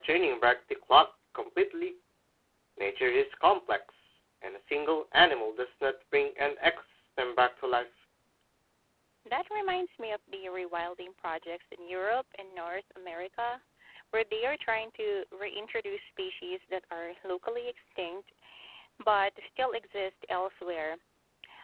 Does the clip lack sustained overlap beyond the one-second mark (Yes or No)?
Yes